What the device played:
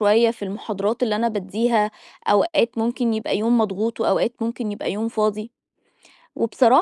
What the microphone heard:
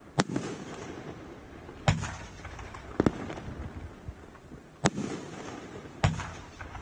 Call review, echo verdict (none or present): none